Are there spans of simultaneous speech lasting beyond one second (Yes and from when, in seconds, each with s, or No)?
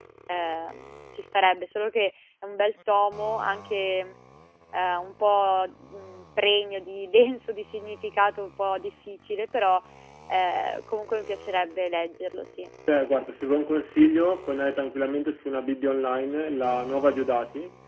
No